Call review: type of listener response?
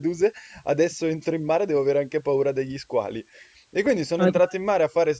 listening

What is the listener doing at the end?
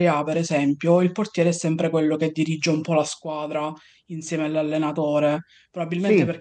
listening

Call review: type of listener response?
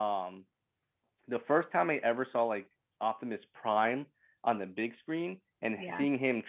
listening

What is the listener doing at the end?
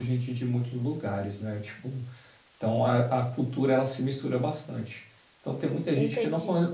listening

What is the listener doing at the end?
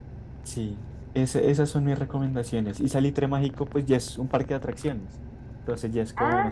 listening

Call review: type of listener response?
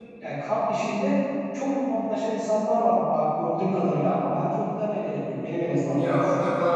taking over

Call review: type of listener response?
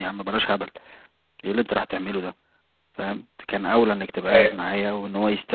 listening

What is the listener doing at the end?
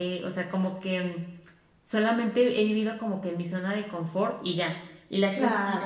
listening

